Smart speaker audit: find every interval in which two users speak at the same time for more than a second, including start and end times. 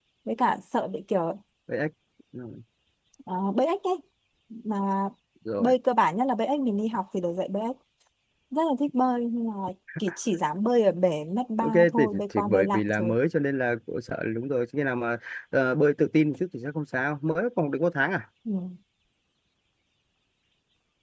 11.6-13.1

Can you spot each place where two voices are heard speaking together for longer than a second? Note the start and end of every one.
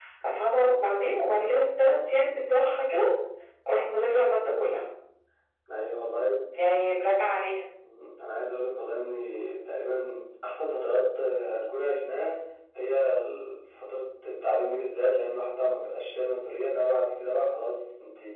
none

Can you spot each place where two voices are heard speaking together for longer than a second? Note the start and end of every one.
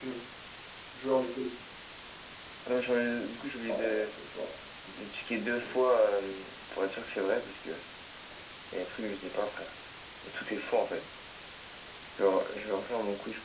none

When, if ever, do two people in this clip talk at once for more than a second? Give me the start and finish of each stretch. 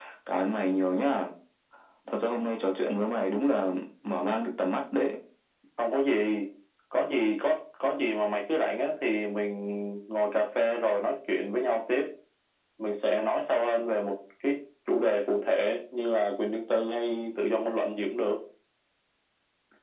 none

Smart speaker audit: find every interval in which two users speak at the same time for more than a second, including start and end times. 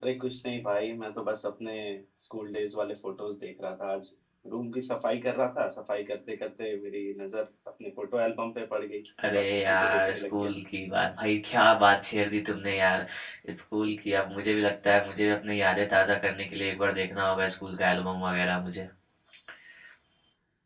9.2-10.5

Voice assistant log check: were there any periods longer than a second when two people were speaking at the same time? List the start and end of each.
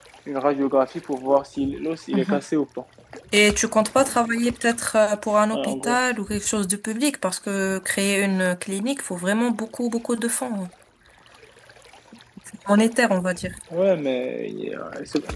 none

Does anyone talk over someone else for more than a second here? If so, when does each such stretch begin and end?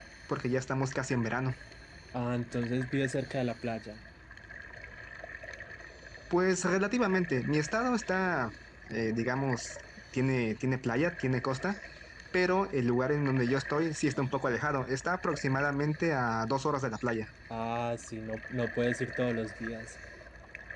none

